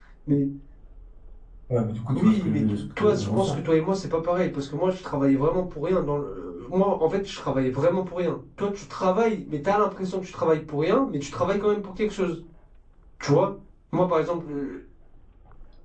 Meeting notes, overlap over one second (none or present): present